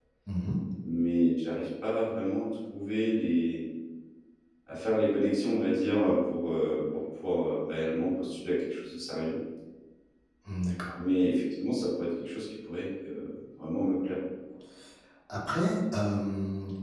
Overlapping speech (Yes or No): No